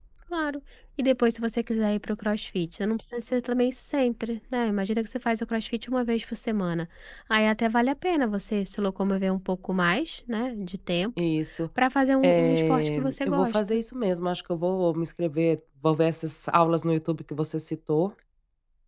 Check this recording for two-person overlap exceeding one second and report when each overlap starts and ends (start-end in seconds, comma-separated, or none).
12.2-13.8